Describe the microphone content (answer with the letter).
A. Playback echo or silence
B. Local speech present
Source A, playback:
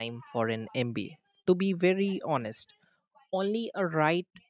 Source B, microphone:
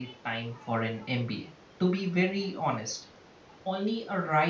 A